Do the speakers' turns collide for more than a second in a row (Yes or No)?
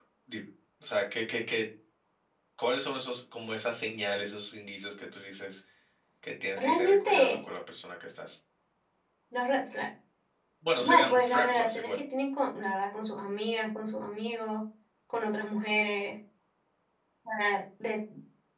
Yes